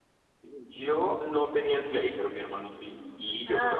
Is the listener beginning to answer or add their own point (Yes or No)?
No